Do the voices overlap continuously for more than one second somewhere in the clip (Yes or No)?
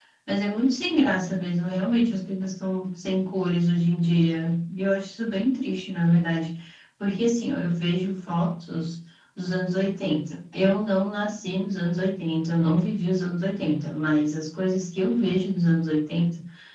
No